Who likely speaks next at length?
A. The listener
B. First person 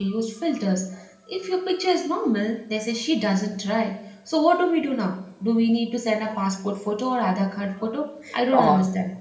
A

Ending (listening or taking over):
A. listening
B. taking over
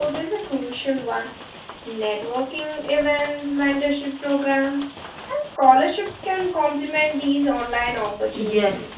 B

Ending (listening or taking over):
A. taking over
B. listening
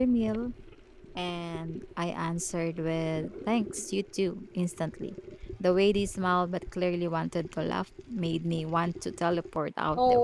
A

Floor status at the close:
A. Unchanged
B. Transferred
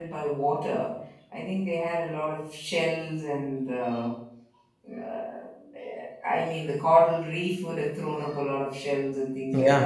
A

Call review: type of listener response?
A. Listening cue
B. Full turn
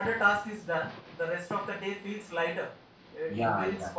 A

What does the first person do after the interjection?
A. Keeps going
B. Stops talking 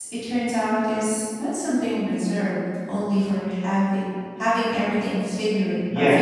B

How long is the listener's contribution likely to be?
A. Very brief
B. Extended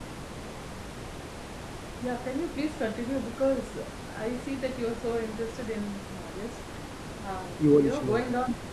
A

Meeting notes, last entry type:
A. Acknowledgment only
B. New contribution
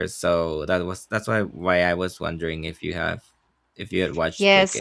B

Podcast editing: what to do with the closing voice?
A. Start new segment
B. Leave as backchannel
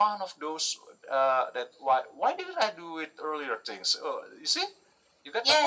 A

